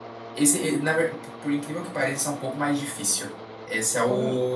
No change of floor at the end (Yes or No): Yes